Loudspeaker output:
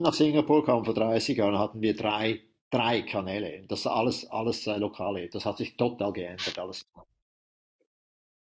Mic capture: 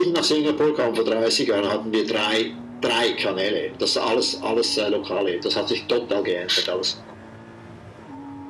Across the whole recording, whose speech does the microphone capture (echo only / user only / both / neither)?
echo only